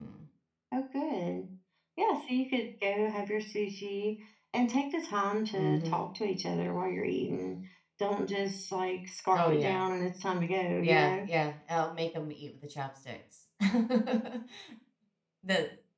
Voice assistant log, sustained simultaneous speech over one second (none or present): none